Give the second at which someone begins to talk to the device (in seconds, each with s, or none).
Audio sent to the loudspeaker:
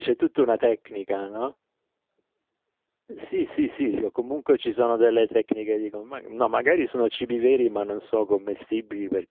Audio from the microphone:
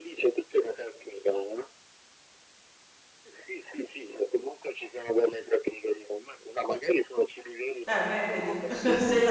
7.9 s